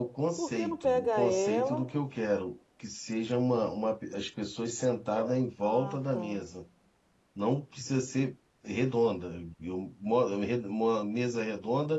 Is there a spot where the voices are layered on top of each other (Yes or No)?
Yes